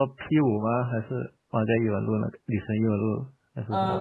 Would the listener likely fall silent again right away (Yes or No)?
No